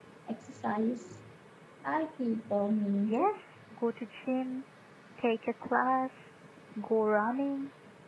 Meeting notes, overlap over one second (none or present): none